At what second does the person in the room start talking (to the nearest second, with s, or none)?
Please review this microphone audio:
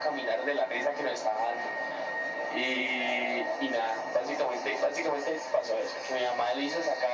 none